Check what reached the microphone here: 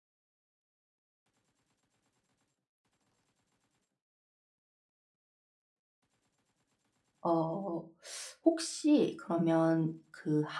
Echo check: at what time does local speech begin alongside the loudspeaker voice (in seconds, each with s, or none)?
7.2 s